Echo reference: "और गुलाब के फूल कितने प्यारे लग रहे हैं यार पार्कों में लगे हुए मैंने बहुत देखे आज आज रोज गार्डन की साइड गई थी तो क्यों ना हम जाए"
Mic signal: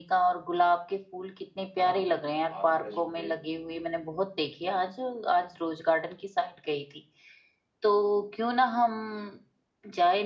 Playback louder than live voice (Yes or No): Yes